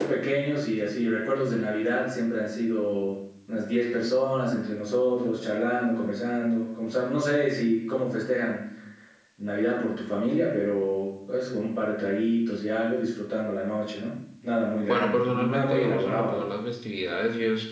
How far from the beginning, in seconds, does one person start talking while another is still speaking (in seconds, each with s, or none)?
14.9 s